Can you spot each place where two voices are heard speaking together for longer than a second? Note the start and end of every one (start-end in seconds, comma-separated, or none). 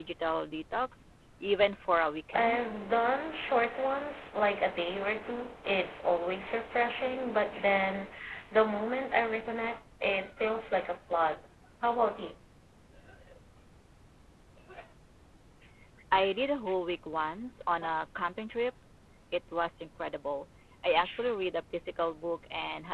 none